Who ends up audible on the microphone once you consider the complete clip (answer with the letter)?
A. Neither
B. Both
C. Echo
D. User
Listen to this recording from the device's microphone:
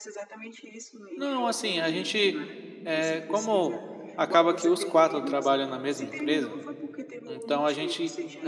B